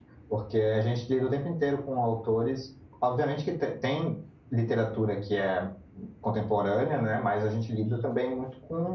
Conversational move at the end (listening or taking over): listening